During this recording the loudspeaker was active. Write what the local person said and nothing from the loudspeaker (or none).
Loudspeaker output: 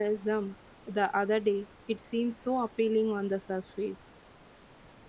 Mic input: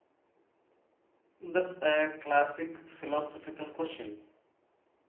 That's a classic philosophical question,